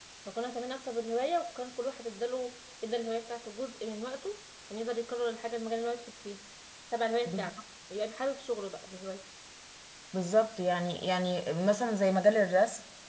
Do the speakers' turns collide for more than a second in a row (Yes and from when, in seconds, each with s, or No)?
No